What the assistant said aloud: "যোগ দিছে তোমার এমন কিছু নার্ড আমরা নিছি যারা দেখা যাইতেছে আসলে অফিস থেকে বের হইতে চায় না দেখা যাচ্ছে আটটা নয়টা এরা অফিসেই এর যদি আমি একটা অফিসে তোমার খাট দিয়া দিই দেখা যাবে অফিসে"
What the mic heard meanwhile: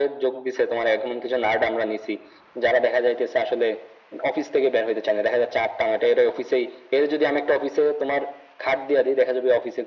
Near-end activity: none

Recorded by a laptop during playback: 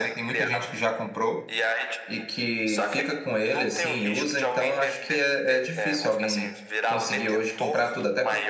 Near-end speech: present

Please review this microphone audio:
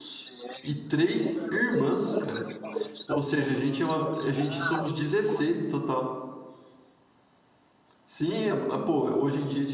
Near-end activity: present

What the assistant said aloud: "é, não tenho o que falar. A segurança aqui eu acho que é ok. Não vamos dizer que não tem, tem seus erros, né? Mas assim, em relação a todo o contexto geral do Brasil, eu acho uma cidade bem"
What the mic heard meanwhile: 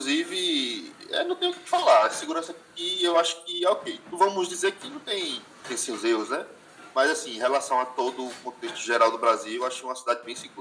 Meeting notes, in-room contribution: none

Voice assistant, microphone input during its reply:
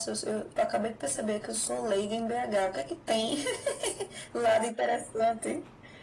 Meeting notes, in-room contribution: none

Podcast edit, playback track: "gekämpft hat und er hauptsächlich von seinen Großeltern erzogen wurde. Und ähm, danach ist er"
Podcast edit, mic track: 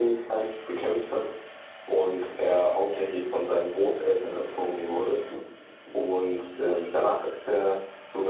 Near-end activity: none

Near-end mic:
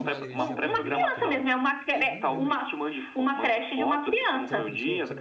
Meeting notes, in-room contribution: present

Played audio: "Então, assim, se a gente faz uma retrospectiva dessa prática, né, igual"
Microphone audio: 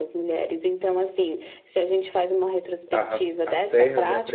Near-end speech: present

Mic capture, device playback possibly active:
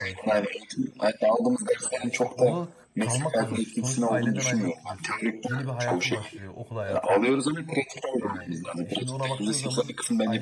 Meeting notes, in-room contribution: present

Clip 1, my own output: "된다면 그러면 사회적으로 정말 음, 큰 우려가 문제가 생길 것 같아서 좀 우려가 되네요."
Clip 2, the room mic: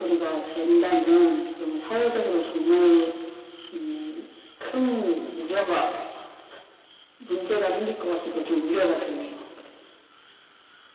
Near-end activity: none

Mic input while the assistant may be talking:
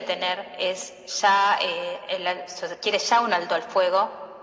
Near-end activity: none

